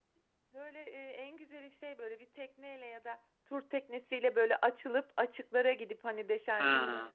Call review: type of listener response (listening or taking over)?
listening